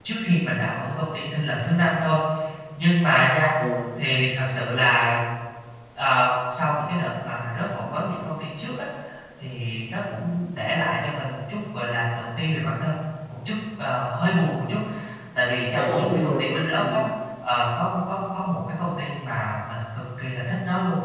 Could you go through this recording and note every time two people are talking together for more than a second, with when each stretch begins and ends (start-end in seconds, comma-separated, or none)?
15.5-17.0